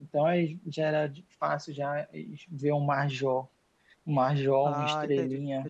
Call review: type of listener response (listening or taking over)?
taking over